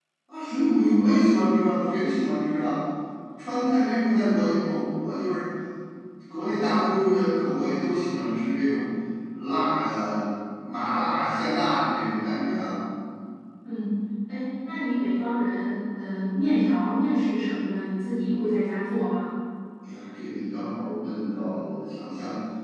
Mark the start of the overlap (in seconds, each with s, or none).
none